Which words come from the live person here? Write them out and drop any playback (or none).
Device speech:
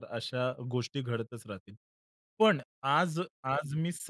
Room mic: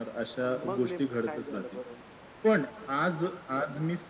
अ, मग नेमकं काय झालं बरं?